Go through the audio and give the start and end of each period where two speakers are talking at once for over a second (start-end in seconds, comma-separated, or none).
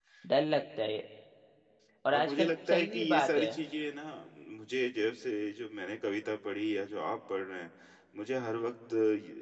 2.1-3.5